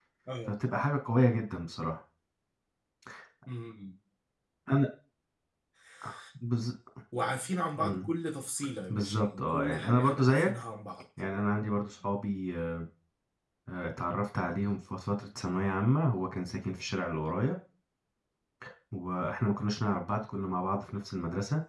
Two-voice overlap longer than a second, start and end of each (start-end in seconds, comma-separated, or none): 8.9-10.5